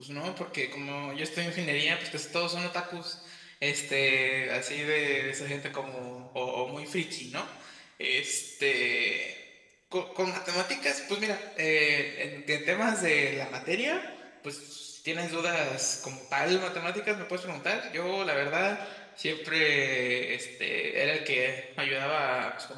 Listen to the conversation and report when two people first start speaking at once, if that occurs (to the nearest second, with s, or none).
none